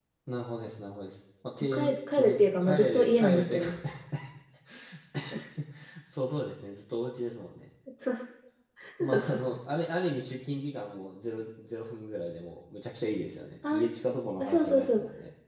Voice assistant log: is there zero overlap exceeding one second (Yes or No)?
No